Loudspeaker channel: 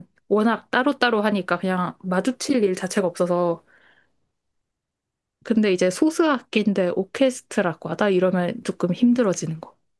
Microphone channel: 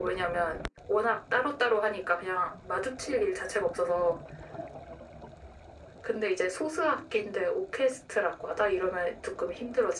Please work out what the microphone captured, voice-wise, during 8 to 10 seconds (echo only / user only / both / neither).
echo only